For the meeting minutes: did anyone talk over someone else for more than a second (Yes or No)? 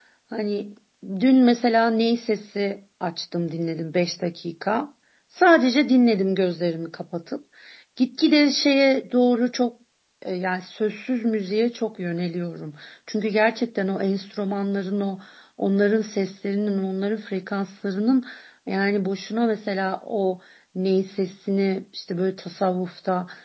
No